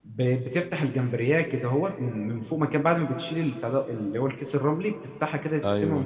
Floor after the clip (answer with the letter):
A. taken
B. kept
B